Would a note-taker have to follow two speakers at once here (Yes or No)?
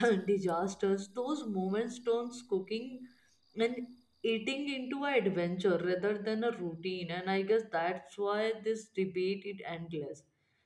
No